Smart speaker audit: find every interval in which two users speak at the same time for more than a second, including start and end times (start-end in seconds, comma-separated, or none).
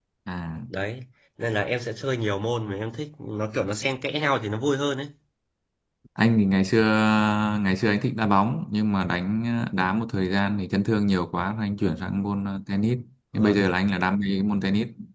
none